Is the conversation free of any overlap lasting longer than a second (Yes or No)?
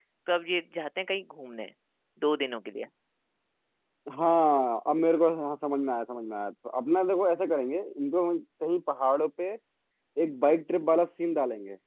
Yes